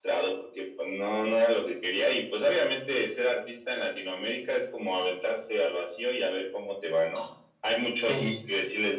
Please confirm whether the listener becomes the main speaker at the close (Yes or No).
No